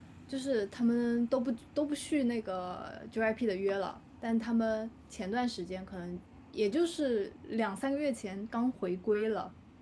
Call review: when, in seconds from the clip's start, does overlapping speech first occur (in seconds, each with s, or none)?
none